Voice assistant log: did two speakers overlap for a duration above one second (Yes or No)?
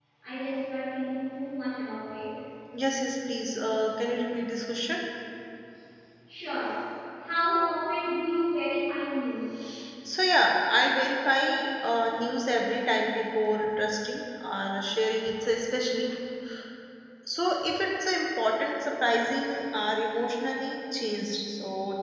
No